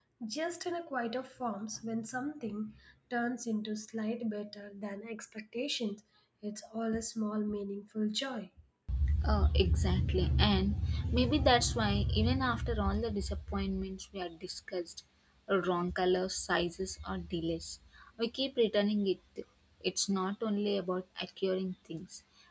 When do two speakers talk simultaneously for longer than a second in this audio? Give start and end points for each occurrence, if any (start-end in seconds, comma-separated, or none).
none